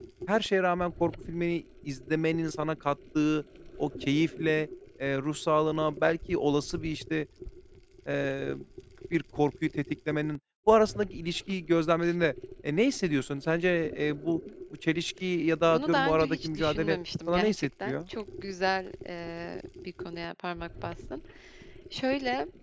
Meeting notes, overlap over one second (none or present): present